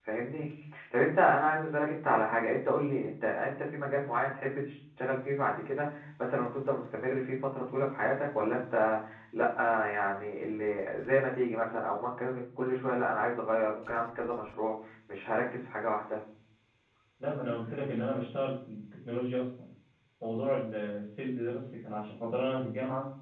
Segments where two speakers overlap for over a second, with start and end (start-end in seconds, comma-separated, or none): none